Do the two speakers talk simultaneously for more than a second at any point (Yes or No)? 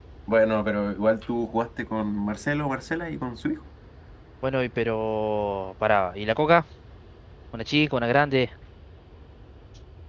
No